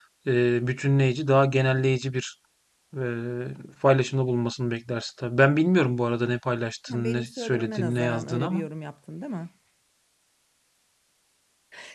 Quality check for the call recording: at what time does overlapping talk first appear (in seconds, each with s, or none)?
6.9 s